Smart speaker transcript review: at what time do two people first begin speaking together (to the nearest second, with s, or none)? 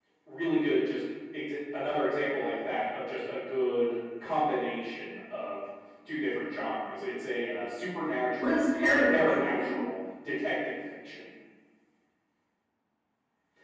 8 s